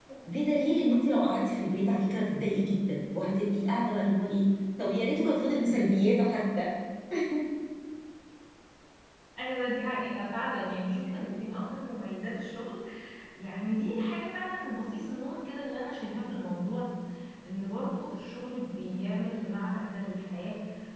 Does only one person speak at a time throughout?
Yes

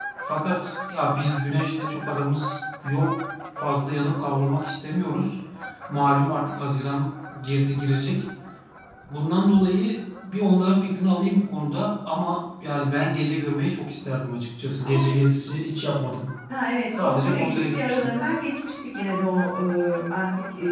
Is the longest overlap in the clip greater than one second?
Yes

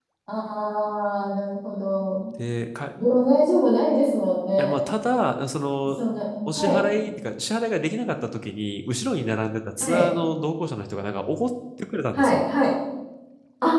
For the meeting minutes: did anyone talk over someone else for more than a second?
No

